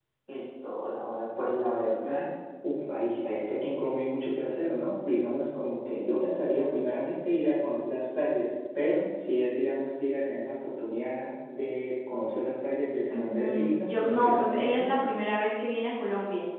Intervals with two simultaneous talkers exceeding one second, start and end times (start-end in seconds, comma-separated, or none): 13.1-14.9